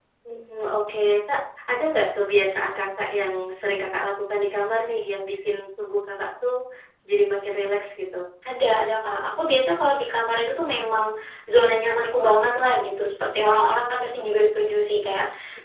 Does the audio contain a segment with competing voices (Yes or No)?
No